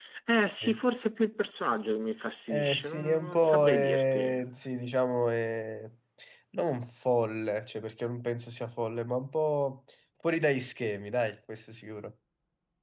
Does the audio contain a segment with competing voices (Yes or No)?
Yes